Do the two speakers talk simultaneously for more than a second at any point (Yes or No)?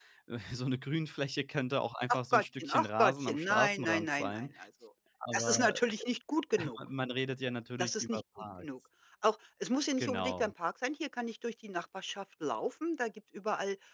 Yes